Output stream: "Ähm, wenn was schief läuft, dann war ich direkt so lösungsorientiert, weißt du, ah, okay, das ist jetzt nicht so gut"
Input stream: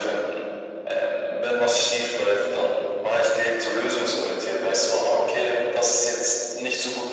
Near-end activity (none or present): none